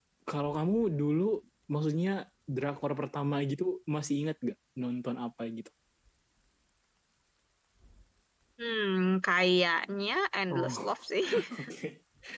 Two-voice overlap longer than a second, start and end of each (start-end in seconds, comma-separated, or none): none